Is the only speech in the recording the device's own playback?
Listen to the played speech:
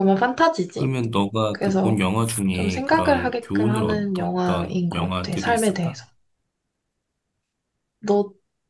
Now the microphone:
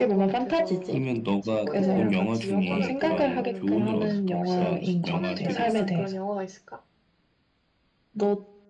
No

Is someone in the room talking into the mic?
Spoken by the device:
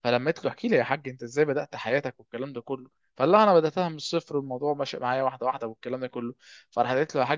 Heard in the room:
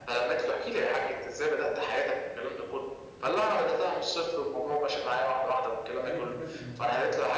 Yes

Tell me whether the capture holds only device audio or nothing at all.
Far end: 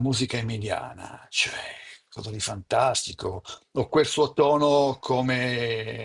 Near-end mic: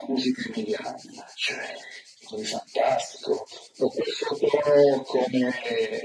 Yes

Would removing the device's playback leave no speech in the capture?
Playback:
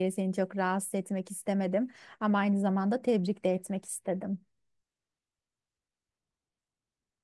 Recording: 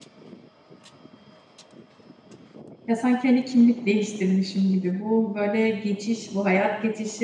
No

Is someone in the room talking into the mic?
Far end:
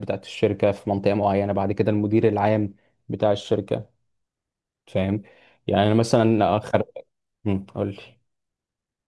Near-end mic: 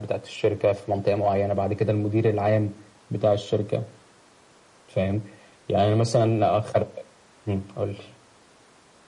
No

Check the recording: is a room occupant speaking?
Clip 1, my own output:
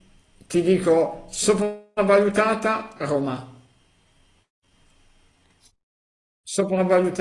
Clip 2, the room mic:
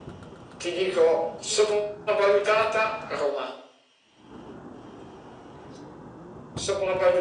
No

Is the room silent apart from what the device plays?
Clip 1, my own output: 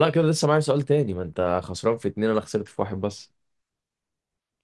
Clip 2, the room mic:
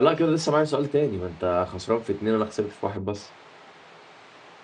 Yes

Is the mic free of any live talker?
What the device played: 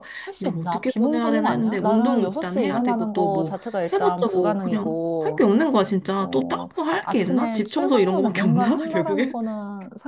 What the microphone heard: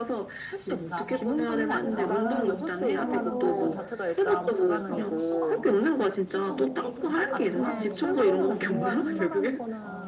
No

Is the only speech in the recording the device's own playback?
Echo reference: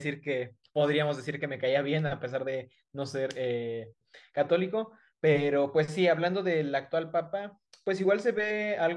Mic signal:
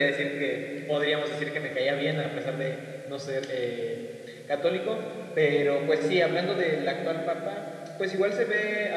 Yes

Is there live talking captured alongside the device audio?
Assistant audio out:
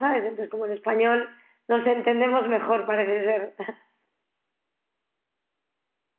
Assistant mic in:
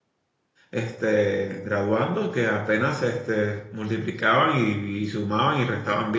Yes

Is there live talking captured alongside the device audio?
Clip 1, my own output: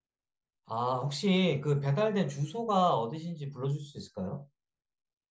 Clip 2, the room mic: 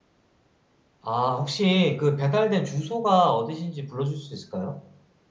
No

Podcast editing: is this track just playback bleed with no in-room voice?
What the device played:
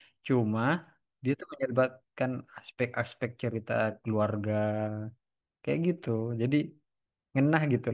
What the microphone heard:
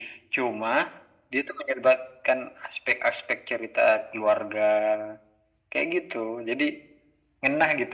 Yes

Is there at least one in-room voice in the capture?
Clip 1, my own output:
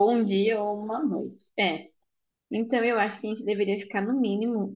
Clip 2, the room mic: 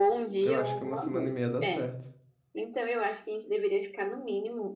Yes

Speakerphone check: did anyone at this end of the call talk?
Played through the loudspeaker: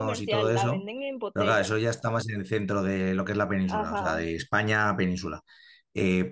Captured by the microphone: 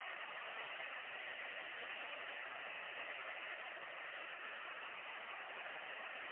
No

